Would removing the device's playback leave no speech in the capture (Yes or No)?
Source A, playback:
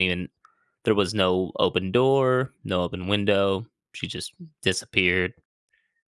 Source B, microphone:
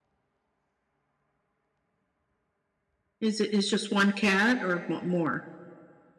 No